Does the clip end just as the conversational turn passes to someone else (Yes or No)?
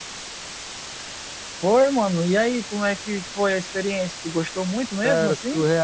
Yes